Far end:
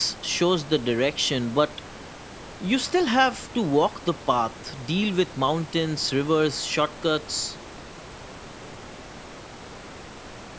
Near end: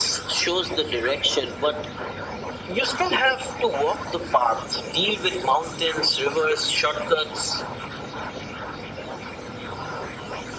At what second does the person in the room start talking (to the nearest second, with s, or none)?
none